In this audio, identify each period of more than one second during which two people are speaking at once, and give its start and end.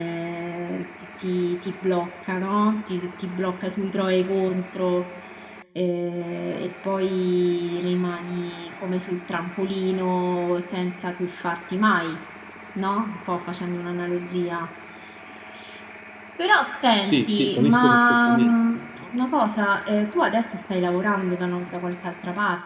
17.0-18.5

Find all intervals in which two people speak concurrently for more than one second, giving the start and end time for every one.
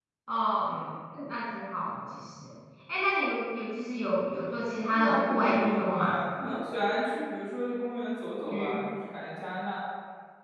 4.9-6.2

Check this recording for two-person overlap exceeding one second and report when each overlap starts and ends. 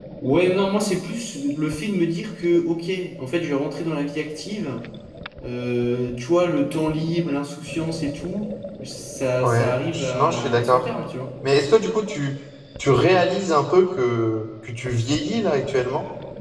9.4-10.8

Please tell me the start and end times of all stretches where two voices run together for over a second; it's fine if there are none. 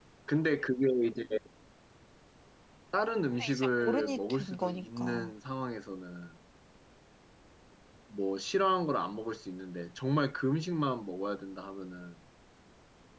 3.4-5.3

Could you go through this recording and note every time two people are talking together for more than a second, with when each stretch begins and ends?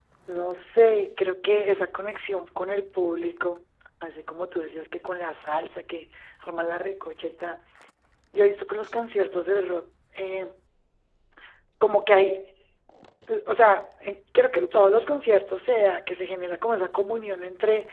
none

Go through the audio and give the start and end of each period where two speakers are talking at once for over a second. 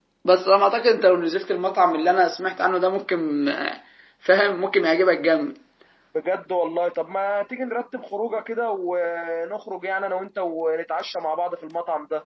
none

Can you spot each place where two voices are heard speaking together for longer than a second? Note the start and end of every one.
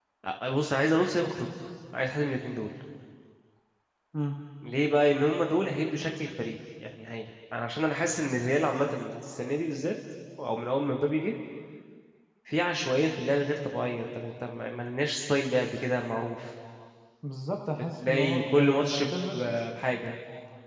17.7-19.1

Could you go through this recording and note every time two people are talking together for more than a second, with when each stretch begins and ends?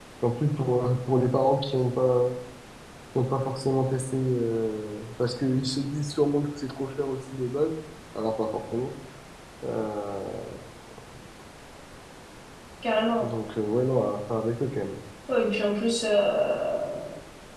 none

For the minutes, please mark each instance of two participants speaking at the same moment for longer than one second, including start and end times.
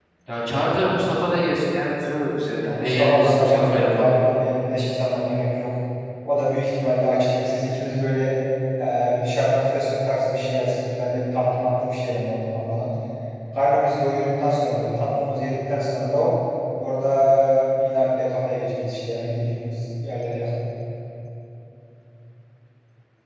2.6-4.1

